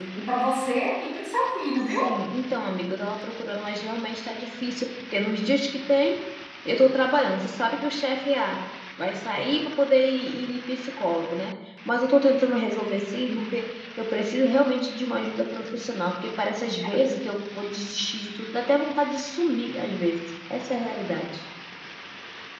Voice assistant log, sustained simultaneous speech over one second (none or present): none